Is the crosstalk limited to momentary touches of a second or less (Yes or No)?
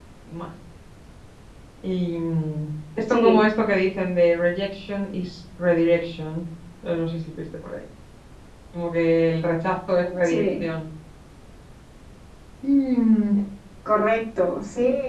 Yes